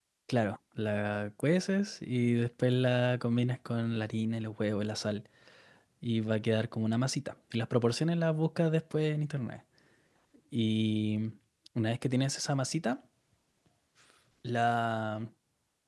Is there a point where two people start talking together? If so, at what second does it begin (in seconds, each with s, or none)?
none